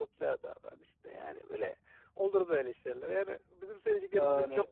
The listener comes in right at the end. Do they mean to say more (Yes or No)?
No